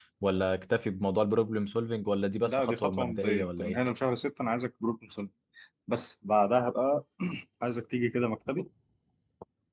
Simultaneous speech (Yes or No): Yes